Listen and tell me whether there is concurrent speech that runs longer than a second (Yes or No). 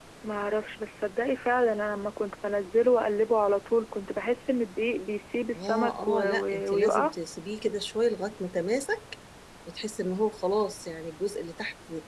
Yes